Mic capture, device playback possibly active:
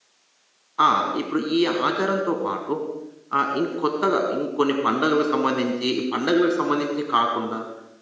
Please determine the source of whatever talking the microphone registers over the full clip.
user only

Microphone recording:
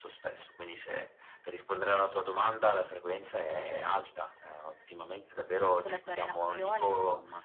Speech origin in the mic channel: both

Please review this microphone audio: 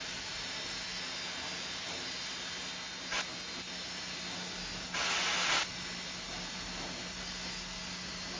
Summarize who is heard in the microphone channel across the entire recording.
neither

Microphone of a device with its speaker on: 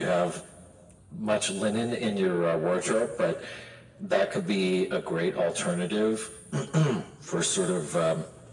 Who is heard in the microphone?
echo only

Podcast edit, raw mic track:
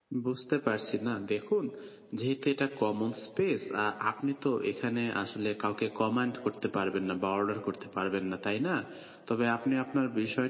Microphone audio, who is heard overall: user only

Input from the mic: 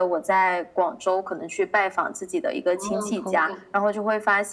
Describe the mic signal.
both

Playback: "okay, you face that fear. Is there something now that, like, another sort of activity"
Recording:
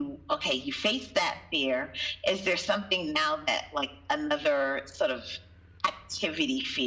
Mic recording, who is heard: echo only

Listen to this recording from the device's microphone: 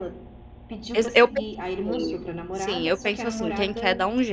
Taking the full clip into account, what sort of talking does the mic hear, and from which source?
both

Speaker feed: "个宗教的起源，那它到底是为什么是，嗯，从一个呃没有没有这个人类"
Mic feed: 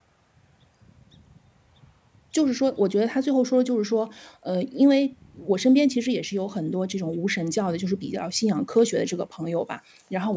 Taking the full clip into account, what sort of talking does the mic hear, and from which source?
user only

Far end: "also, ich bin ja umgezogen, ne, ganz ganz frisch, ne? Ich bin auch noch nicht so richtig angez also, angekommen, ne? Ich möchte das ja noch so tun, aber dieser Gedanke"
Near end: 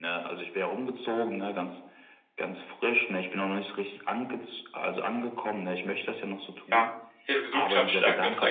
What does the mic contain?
both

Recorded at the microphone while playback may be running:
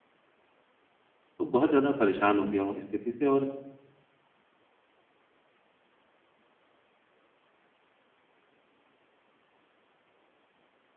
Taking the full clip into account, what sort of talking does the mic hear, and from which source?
user only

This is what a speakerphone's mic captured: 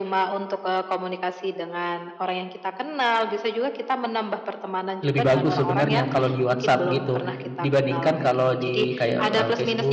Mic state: both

